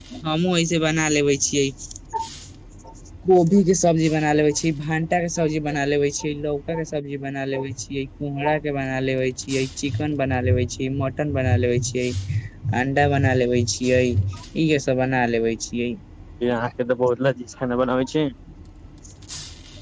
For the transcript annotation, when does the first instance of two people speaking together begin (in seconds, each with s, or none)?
none